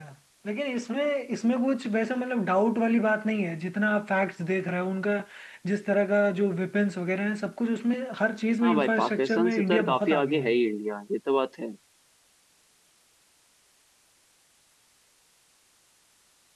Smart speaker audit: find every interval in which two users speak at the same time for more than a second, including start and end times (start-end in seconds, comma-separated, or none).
8.6-10.5